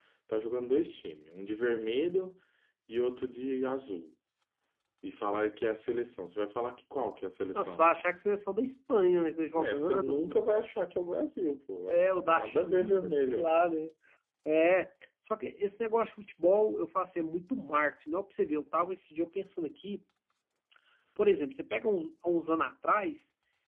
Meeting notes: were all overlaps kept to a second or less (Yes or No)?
No